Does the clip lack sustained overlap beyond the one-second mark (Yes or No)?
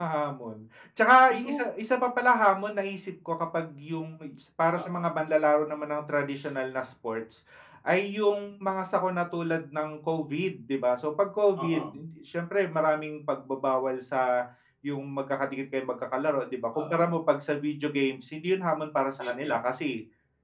Yes